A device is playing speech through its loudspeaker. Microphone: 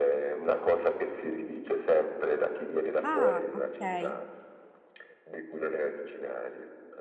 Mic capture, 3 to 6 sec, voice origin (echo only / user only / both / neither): both